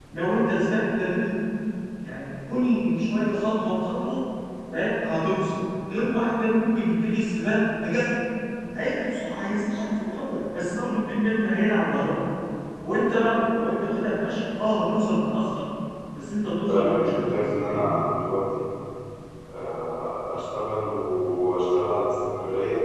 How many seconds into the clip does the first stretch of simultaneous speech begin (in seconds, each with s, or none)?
16.7 s